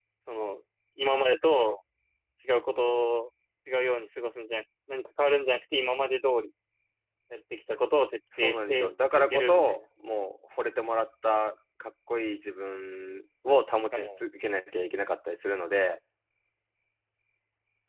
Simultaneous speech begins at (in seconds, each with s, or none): 8.4 s